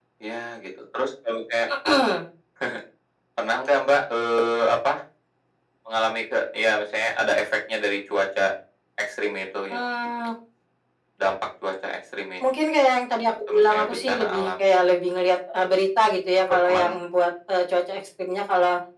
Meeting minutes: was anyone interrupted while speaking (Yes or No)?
Yes